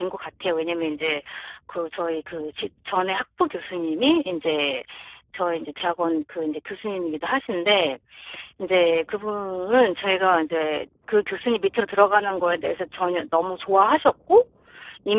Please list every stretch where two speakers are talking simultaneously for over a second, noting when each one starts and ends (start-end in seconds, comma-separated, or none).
none